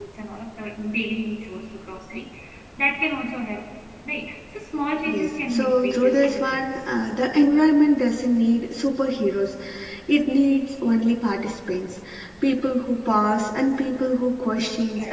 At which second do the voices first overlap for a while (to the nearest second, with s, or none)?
5 s